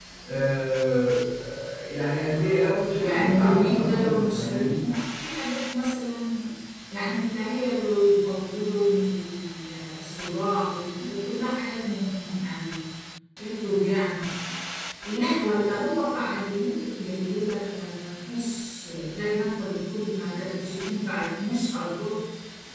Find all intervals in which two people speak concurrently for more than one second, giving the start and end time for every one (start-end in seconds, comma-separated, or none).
3.0-4.8